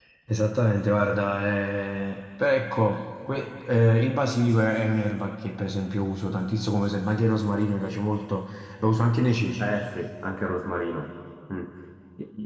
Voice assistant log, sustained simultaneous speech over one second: none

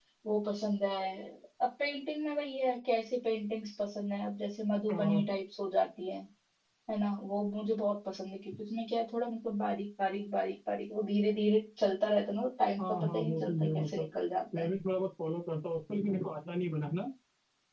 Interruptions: present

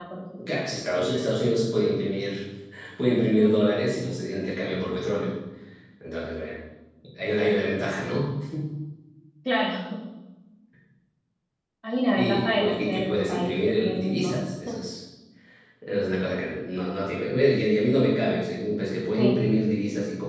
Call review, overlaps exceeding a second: present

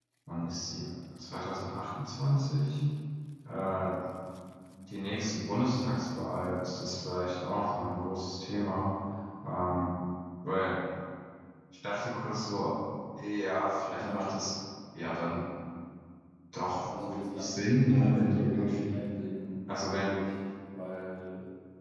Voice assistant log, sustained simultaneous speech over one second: present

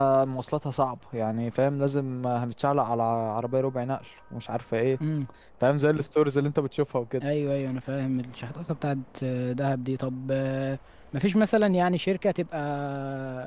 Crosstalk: none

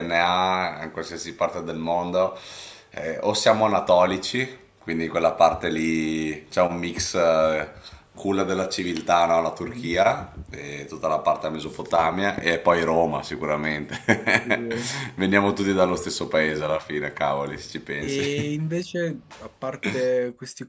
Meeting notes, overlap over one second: none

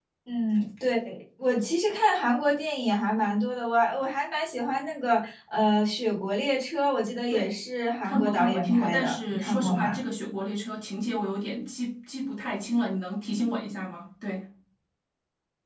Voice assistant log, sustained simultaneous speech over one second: present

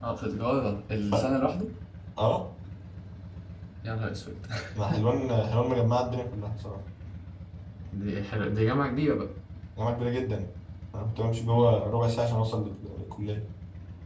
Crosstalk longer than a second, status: none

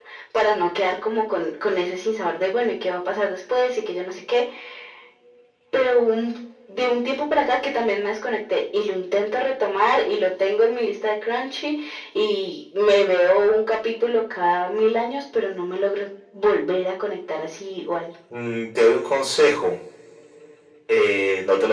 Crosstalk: none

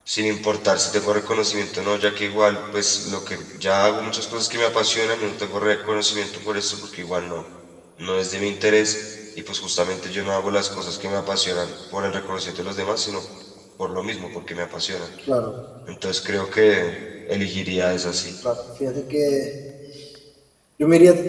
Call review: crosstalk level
none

